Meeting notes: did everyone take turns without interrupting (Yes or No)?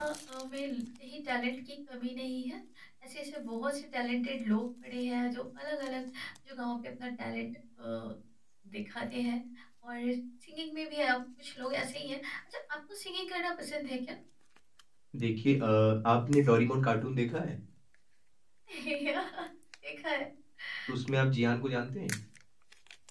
Yes